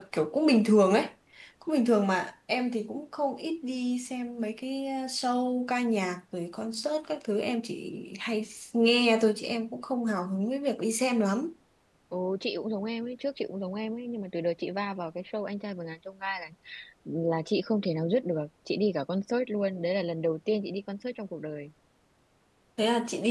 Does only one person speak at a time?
Yes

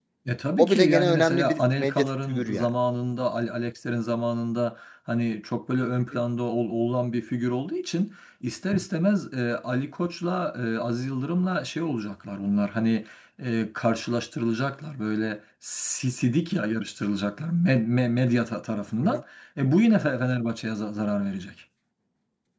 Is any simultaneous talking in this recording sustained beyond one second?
Yes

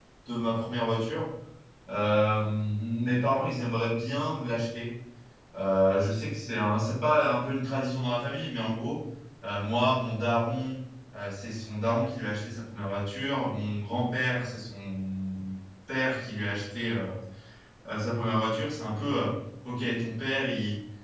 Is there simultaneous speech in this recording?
No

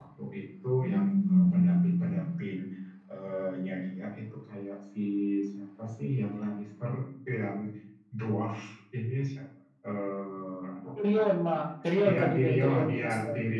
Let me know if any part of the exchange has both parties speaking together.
Yes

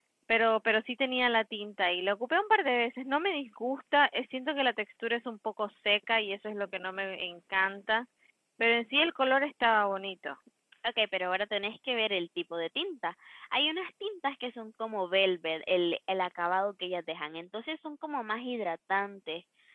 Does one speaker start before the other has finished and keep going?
No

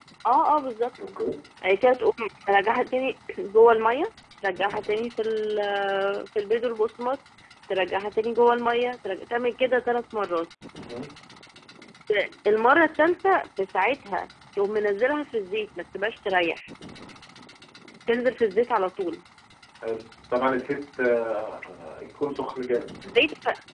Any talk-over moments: No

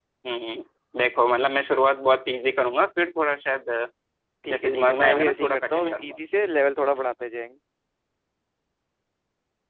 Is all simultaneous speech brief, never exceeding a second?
No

